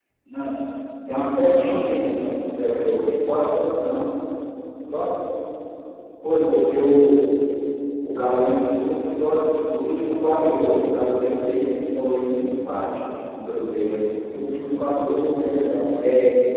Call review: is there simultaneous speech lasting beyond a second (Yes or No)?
No